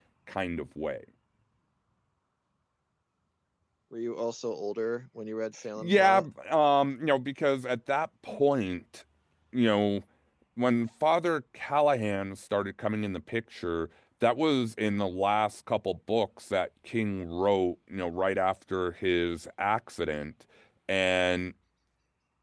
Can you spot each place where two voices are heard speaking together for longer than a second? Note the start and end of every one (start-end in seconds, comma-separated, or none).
none